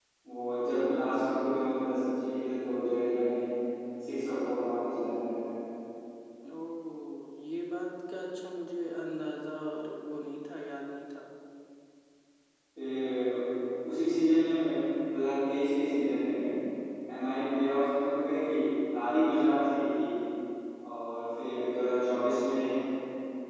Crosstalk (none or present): none